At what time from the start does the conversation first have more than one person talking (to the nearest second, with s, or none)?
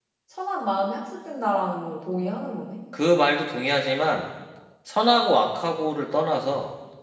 none